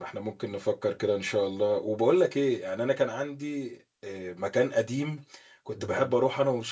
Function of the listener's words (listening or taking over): listening